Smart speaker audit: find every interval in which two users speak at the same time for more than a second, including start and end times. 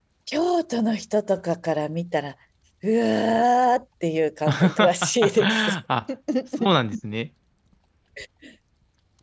4.5-5.8

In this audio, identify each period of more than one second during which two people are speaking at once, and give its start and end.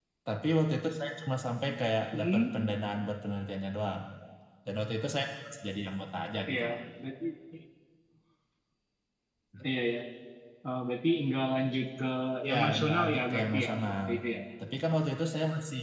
12.5-14.1

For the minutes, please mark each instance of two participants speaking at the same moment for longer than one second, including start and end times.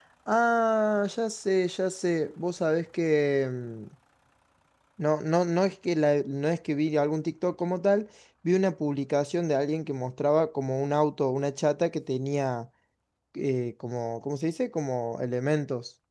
none

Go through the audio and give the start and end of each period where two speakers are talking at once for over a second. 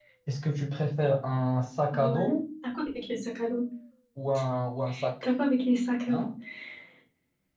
none

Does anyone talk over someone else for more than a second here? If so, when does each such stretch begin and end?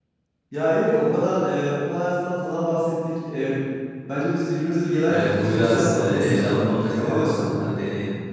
5.1-7.4

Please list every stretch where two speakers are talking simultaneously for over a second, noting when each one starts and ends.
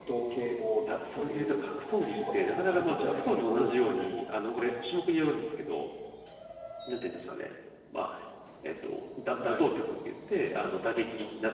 0.9-4.1

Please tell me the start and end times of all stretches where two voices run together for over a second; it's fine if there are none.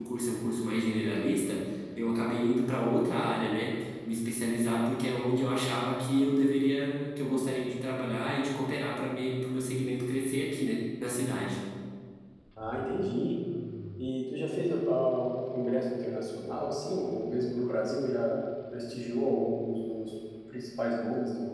none

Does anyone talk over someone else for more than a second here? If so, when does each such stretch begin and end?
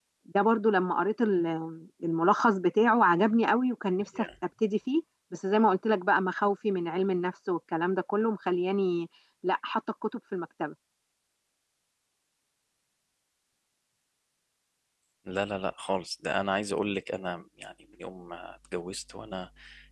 none

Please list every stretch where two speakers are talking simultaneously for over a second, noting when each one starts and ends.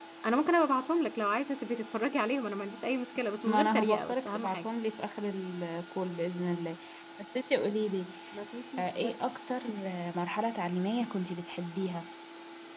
3.4-4.7

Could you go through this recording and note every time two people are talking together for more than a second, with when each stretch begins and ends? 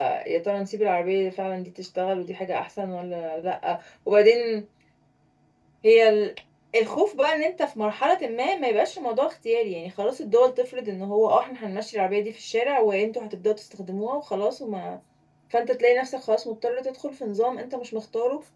none

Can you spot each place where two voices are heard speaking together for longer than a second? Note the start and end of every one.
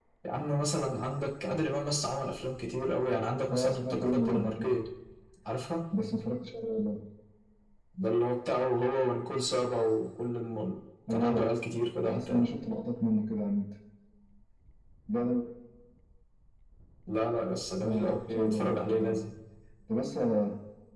3.5-4.7, 17.8-19.2

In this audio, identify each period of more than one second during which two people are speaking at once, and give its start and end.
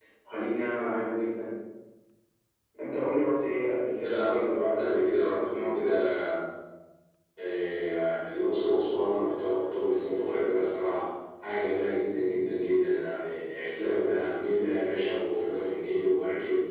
4.0-5.9

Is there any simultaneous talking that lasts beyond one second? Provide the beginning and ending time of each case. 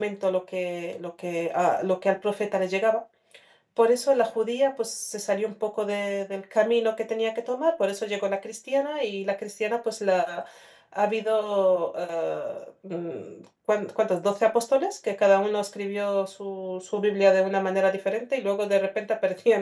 none

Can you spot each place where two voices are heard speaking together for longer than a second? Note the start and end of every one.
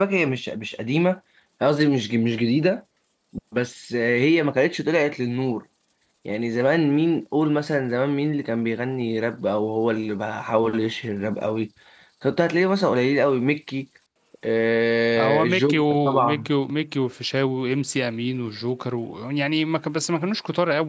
15.2-16.5

